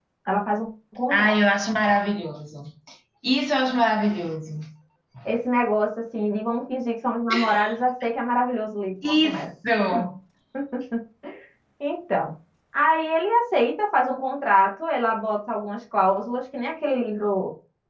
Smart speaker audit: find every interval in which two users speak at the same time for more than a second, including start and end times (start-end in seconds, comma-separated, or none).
none